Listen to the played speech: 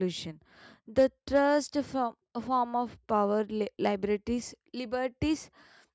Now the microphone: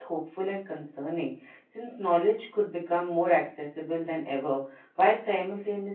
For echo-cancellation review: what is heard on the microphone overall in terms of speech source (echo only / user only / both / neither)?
user only